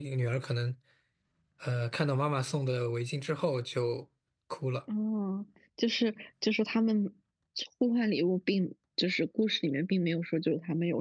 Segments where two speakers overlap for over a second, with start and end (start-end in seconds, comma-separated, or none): none